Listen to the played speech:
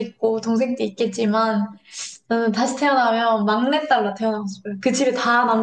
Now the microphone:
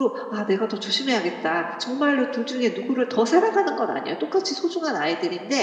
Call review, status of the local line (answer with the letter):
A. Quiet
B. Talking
B